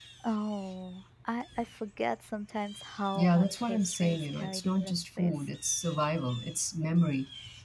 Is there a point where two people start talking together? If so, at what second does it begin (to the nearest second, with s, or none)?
3 s